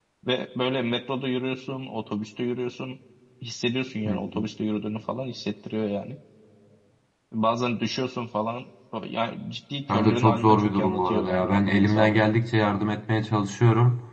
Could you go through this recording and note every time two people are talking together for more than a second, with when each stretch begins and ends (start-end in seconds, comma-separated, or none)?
9.9-12.2